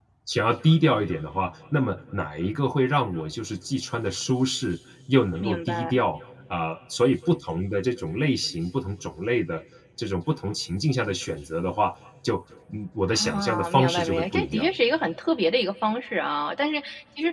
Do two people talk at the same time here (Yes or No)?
Yes